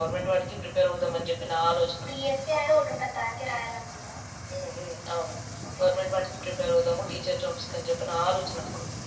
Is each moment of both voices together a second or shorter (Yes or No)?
Yes